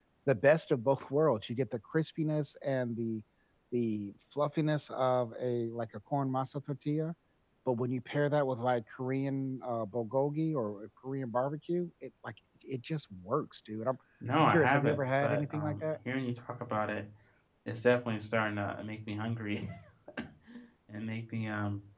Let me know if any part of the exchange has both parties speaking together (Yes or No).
Yes